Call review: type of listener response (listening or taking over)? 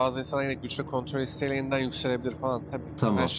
taking over